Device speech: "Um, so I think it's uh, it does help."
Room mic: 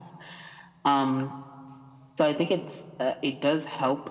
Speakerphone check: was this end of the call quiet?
Yes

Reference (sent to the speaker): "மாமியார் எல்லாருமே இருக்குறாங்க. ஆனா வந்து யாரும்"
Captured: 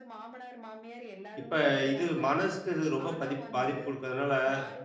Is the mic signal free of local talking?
No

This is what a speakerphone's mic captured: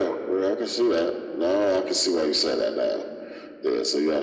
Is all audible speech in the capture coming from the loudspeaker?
Yes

